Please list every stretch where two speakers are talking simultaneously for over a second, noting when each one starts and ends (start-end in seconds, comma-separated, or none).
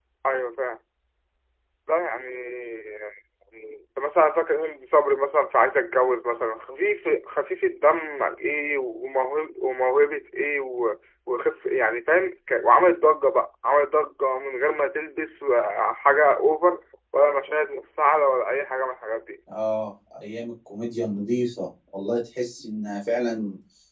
none